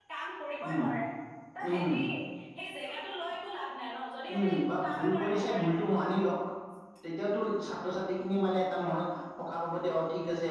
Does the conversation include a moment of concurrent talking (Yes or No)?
Yes